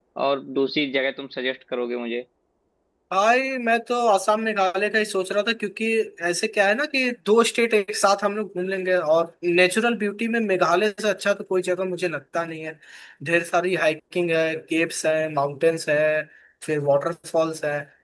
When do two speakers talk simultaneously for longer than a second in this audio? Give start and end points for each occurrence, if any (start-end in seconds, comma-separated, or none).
none